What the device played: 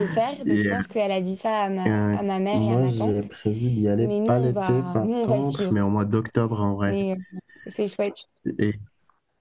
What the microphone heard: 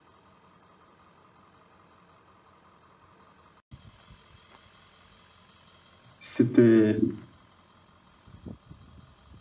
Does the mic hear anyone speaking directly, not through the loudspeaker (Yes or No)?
Yes